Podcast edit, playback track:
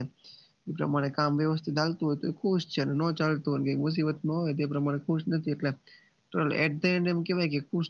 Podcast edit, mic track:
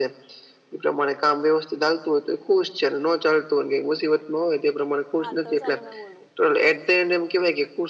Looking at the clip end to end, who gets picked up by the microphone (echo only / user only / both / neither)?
both